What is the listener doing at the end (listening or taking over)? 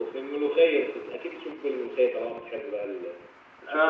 taking over